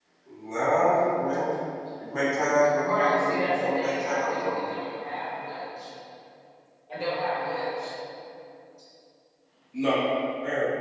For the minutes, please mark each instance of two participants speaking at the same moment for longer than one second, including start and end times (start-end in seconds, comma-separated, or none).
2.8-4.5